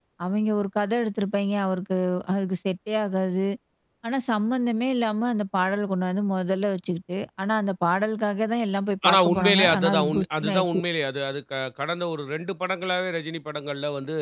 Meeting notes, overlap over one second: present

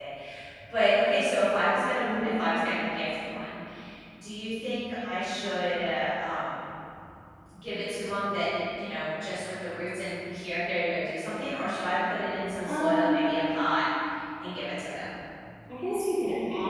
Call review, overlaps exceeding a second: none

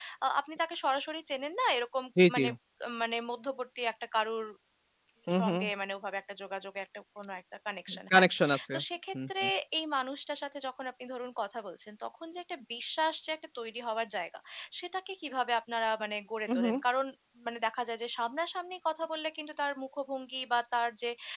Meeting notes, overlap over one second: none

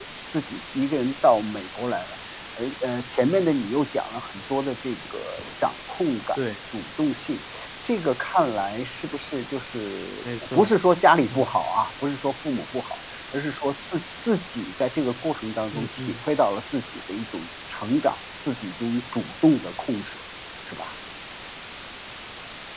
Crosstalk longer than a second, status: none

